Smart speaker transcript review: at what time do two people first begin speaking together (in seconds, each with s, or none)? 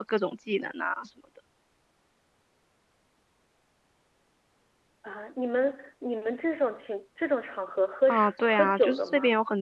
8.1 s